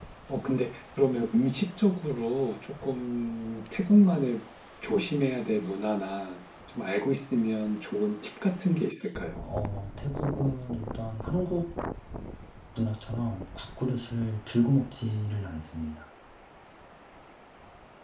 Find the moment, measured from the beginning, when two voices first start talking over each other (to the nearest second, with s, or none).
none